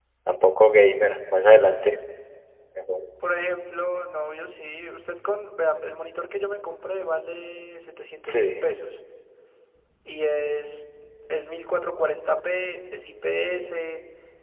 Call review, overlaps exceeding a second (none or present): none